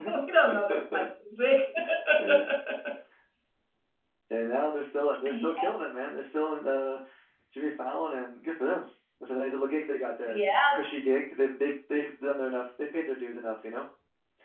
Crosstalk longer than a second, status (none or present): none